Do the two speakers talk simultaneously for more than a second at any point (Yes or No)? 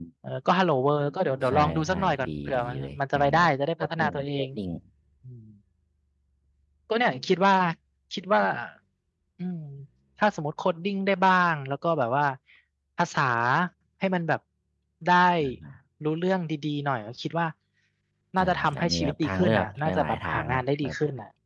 Yes